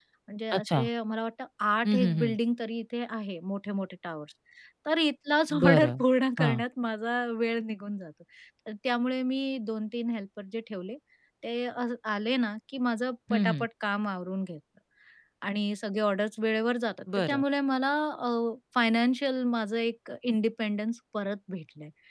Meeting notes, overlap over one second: none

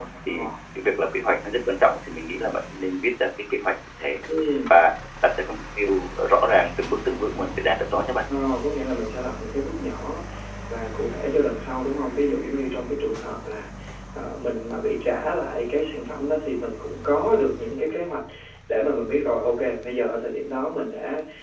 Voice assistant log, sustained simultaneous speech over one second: none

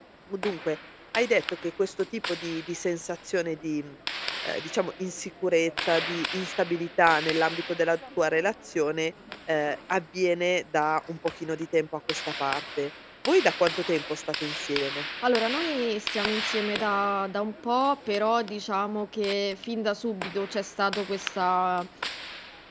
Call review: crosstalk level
none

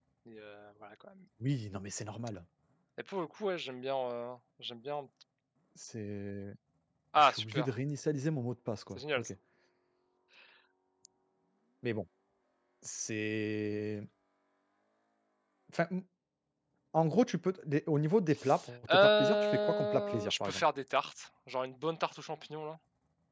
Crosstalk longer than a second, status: present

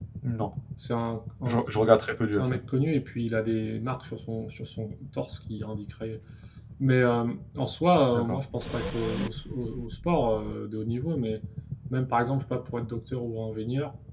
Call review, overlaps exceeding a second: none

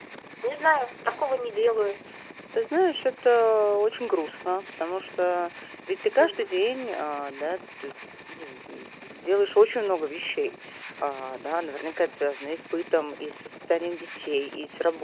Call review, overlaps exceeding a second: none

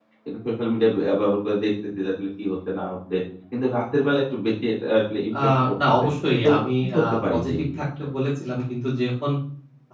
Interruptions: present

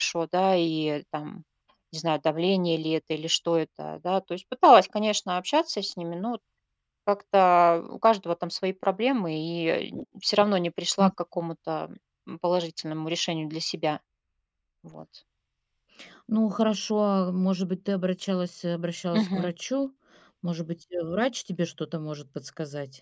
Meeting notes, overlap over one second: none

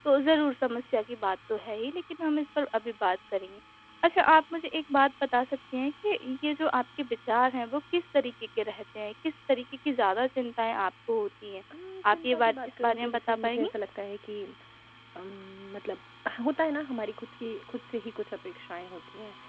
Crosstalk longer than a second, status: present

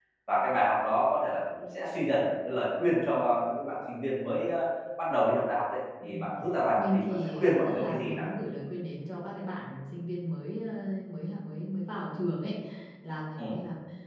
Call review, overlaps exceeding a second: present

